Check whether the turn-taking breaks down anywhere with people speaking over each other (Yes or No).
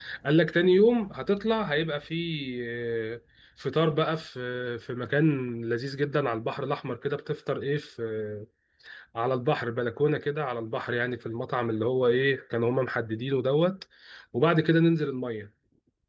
No